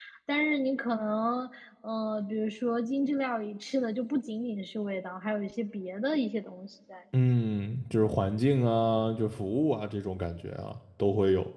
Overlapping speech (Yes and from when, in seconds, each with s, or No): No